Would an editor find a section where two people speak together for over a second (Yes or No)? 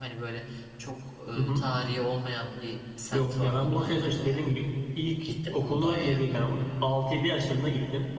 Yes